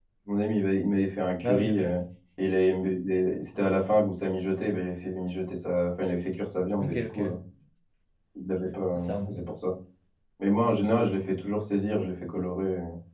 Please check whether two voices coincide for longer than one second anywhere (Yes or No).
No